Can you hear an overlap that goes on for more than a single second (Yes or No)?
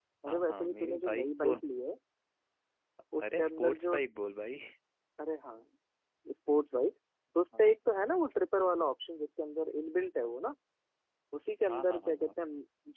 Yes